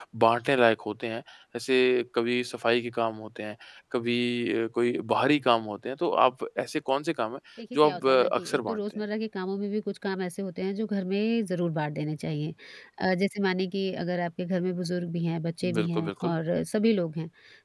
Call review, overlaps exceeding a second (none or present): present